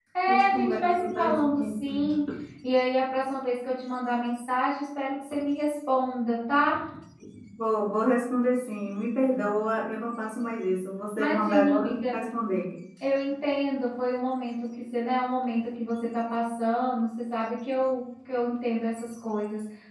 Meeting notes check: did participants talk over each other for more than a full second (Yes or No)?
Yes